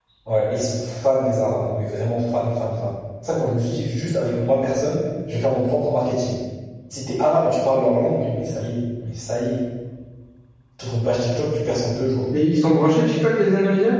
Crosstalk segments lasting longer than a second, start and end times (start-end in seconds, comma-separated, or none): none